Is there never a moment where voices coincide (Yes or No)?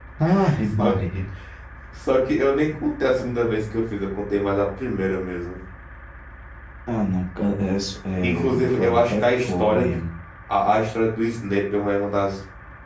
No